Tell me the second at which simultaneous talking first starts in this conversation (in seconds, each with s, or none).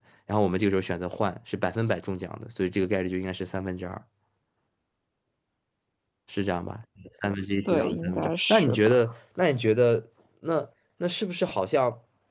7.7 s